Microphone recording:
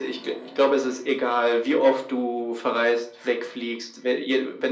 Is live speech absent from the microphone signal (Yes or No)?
Yes